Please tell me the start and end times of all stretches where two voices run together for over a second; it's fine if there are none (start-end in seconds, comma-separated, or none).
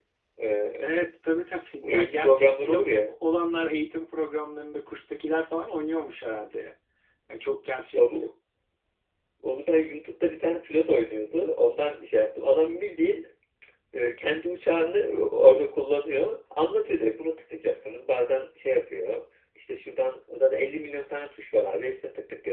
1.8-3.1